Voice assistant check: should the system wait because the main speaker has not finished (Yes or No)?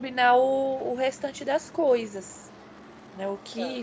No